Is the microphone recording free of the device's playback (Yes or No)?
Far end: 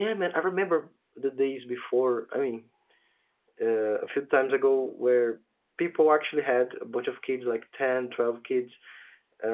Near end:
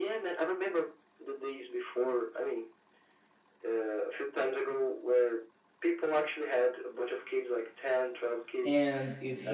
No